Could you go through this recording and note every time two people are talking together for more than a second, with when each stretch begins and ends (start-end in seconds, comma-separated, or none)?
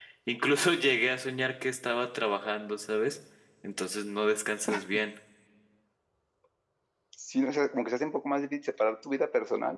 none